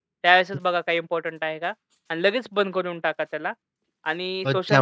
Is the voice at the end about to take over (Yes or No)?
Yes